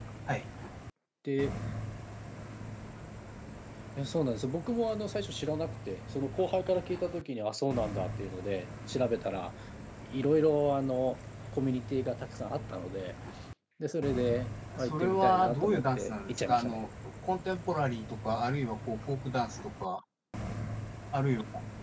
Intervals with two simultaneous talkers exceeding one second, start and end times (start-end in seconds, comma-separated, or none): 14.8-16.8